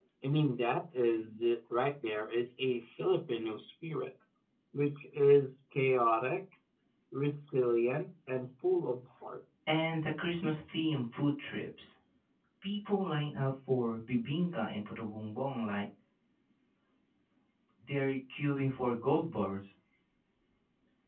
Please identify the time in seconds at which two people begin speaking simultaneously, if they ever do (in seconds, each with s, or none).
none